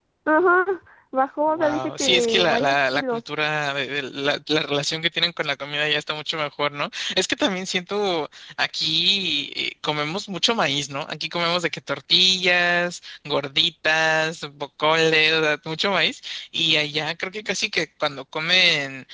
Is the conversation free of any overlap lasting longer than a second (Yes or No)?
No